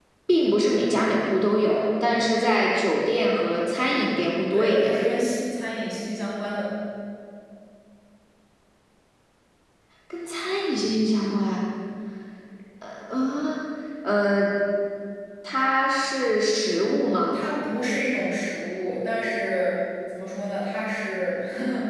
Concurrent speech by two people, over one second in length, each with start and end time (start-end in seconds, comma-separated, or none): none